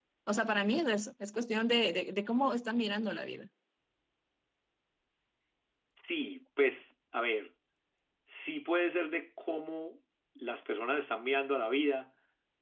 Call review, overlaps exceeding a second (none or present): none